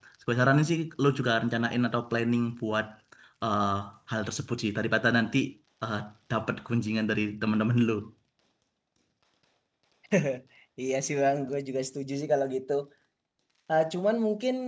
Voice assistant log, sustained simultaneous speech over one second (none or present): none